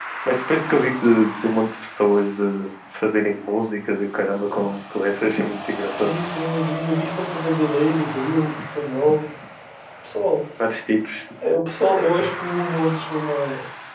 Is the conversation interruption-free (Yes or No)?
Yes